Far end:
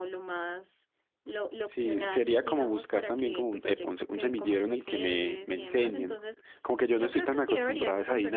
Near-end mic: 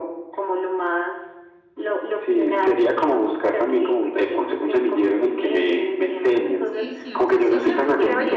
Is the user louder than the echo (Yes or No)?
No